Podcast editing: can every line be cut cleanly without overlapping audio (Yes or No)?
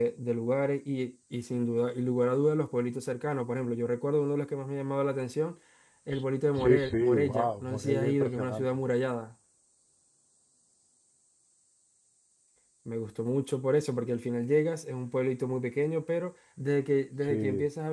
No